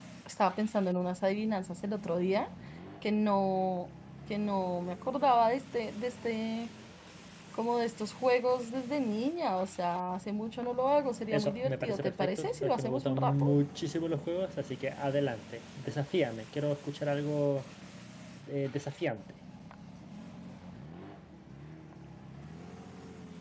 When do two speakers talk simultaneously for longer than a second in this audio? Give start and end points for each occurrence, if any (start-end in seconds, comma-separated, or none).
11.3-13.4